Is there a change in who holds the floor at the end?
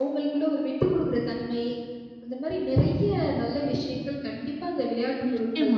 Yes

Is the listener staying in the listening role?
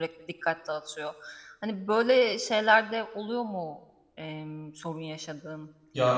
No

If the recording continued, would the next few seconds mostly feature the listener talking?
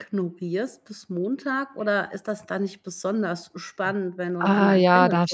Yes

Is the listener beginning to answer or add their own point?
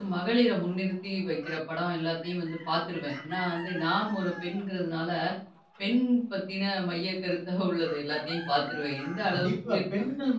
Yes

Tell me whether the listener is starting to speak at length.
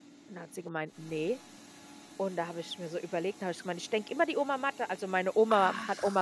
No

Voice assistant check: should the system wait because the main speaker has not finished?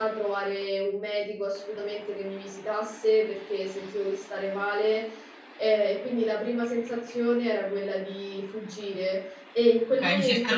No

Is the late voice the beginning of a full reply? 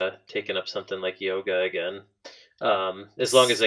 No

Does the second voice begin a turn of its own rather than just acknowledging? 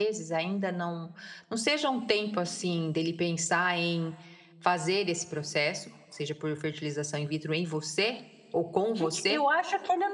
Yes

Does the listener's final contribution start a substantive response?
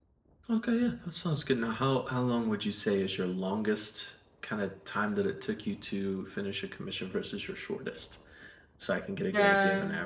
Yes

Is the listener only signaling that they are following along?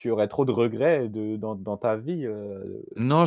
No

